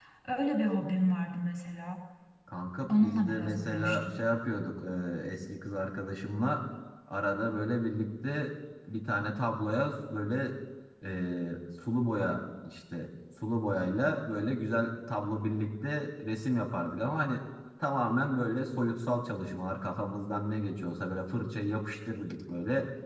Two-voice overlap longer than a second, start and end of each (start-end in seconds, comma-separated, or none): 2.9-4.2